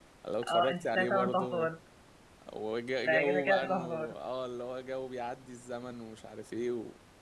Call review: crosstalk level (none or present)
present